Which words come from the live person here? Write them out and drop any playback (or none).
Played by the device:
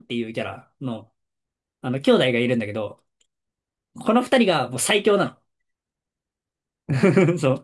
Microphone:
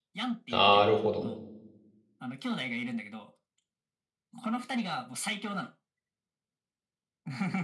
なるほど。